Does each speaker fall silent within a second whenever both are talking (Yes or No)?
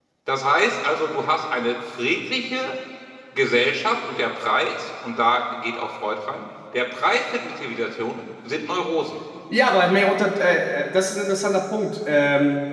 Yes